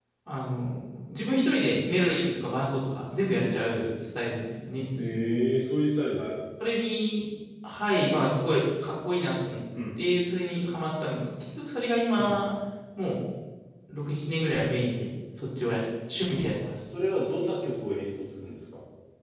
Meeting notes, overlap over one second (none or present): none